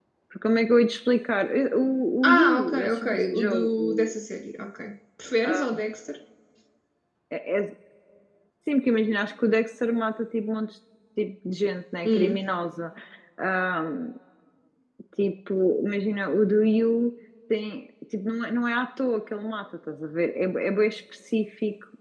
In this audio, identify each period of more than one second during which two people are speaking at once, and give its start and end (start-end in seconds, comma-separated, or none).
2.2-4.1